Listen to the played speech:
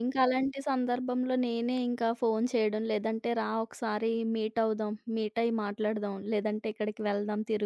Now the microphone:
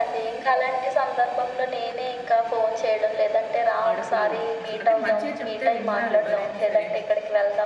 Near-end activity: present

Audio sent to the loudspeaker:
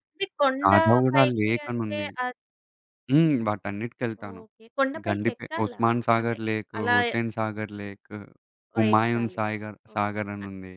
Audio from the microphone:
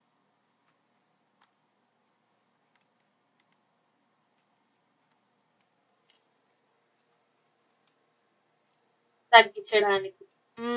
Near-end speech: present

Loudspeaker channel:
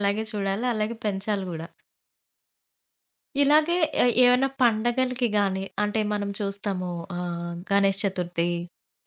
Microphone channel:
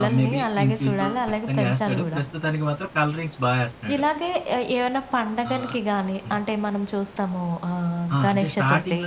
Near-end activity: present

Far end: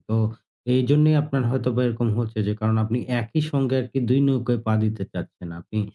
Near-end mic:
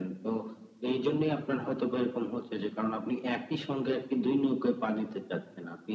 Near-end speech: none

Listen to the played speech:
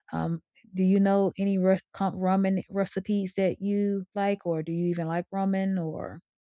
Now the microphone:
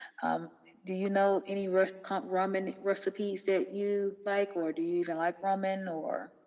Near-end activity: none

